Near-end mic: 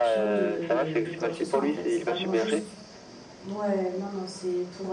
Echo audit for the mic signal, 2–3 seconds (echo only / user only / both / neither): both